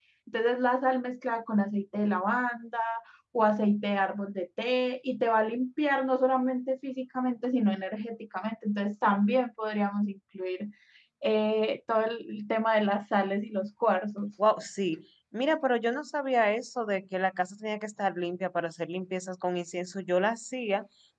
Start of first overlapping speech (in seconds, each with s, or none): none